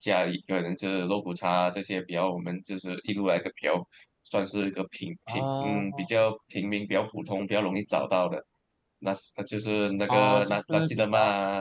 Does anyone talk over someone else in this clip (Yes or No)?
Yes